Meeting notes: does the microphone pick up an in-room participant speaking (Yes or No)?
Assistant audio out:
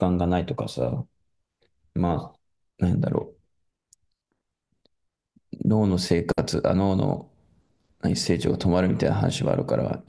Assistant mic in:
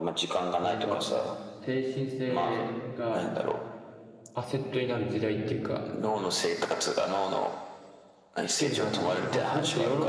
Yes